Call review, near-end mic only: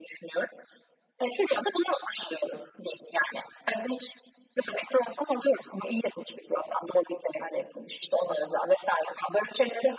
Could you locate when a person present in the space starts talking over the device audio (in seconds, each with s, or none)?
none